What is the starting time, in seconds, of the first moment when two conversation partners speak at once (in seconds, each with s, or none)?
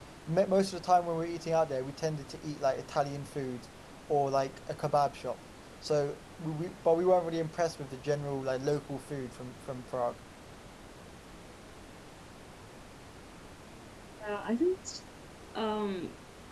none